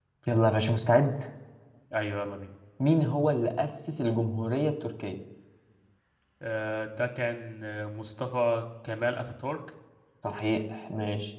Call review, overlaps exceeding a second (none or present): none